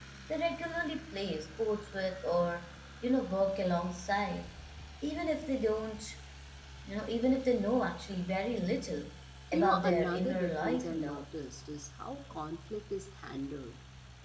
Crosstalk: present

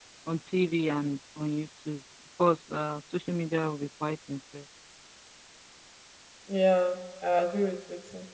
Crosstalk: none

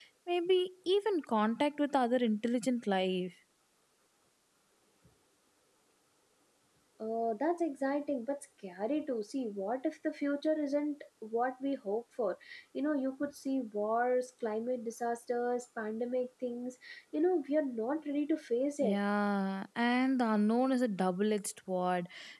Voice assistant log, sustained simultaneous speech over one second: none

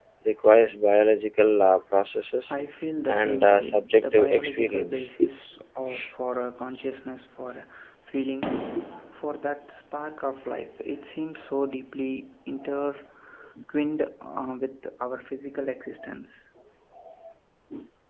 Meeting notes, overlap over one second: present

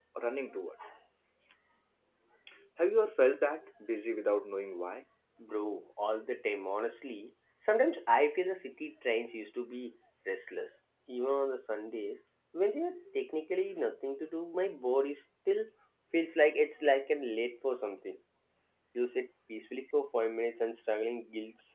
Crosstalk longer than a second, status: none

